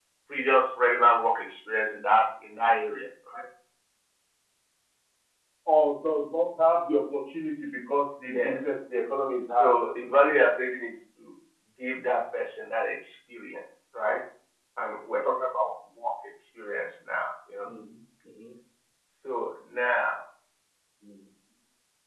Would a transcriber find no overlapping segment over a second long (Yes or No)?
Yes